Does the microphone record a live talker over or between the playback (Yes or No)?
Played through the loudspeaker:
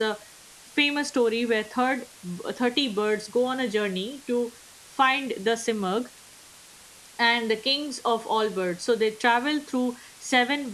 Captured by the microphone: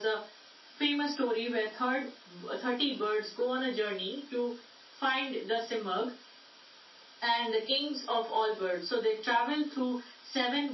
No